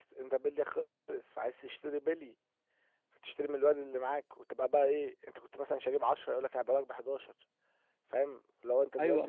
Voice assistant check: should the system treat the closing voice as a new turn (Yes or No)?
Yes